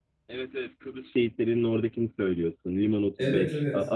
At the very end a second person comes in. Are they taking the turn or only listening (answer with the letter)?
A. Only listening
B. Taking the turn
A